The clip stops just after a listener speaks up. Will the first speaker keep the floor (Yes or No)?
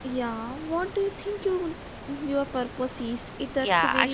No